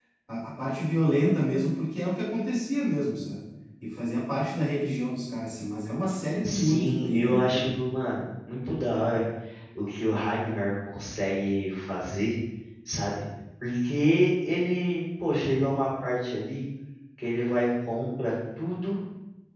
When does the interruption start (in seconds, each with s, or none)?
6.4 s